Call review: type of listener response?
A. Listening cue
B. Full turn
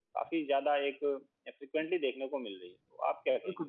B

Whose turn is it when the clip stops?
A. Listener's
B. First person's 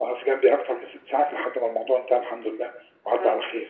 A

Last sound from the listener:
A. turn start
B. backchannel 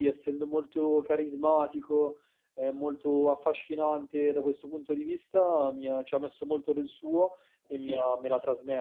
B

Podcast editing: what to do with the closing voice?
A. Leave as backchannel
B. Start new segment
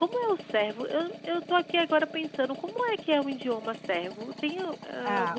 B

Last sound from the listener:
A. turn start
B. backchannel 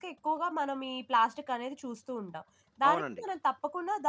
B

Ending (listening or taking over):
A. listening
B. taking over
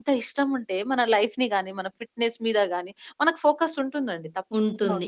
B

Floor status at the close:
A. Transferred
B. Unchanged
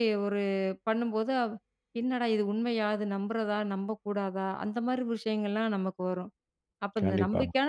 B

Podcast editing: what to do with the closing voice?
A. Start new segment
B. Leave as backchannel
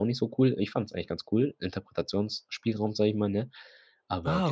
A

